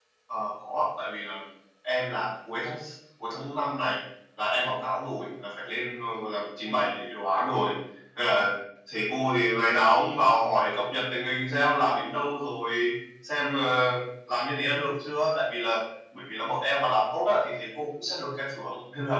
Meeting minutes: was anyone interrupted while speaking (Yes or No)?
No